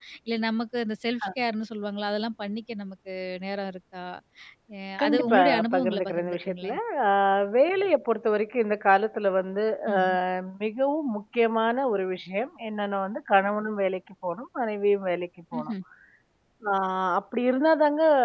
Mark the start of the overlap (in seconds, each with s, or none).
5.0 s